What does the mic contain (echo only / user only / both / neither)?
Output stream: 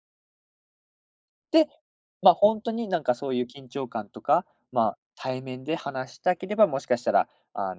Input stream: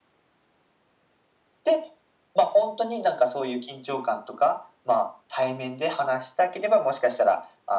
echo only